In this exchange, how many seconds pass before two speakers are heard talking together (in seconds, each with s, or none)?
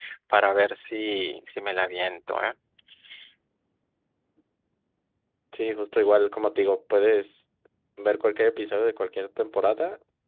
none